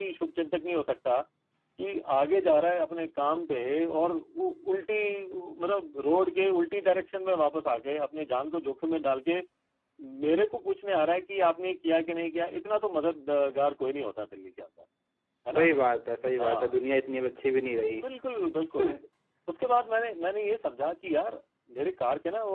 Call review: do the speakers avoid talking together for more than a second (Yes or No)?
Yes